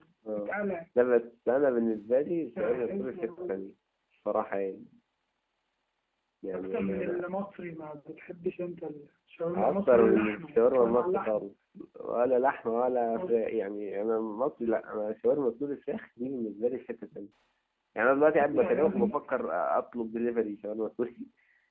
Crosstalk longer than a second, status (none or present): present